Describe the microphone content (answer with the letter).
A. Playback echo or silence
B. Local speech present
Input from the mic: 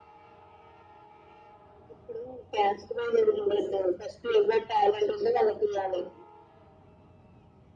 A